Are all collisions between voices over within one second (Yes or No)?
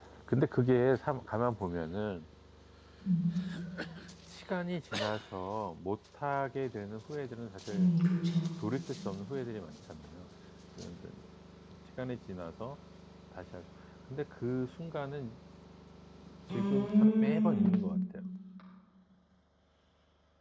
No